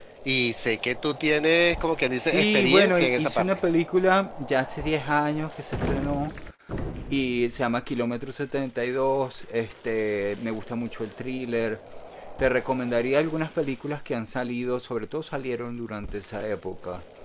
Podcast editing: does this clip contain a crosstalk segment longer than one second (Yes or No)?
Yes